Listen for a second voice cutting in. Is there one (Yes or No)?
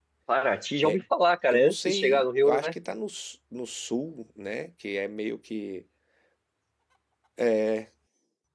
Yes